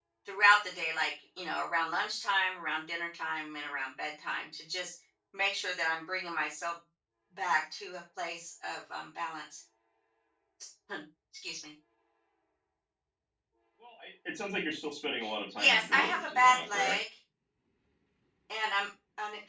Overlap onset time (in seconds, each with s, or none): 15.6 s